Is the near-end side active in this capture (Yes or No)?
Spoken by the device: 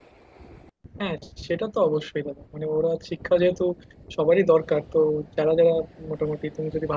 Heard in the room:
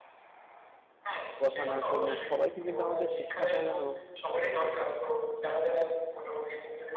Yes